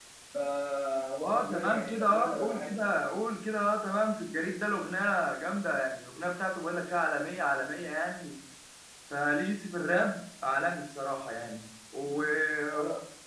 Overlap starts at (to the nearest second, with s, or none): 1 s